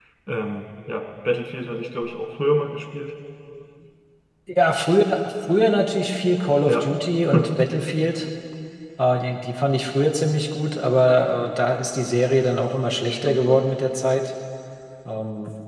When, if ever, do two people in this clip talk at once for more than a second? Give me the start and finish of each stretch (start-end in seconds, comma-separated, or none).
none